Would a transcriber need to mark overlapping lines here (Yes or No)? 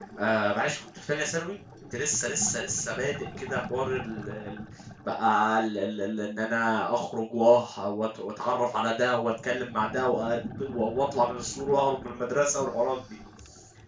No